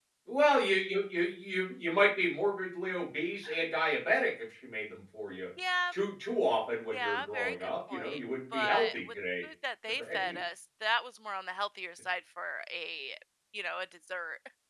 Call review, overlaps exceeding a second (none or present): present